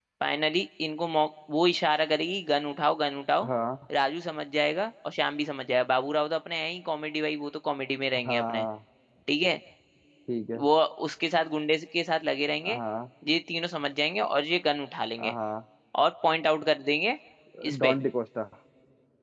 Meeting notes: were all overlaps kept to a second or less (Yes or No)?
Yes